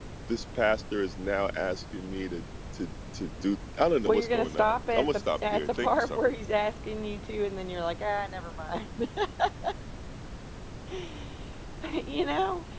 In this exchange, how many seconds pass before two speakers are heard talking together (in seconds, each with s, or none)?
4.0 s